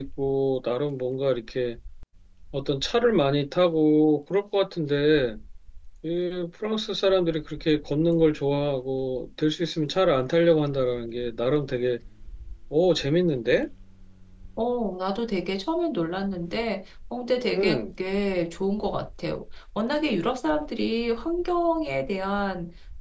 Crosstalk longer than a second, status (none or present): none